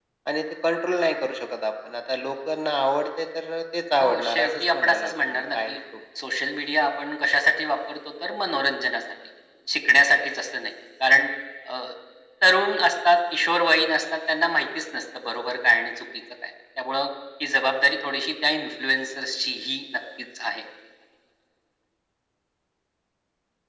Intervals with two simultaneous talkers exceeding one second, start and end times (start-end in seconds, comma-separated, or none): 4.0-5.8